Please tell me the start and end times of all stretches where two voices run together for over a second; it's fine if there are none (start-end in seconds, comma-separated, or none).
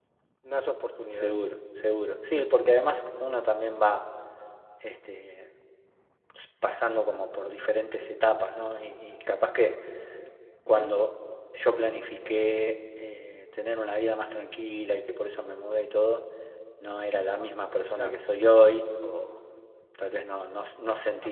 none